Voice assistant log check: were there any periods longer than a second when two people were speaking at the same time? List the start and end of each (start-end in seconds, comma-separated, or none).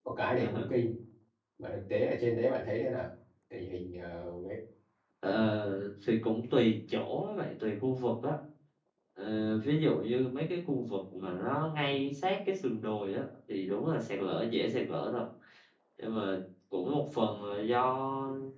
none